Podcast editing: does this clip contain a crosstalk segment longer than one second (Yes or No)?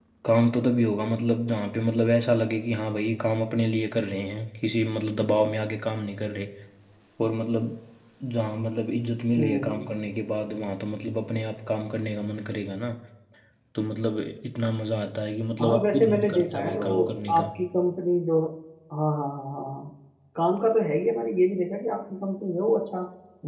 Yes